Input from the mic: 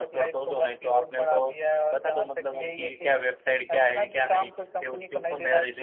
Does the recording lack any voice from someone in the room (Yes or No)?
No